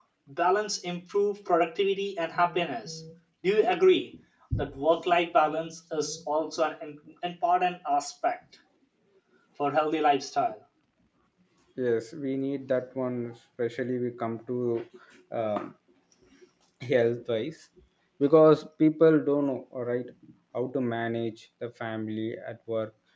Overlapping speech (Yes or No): No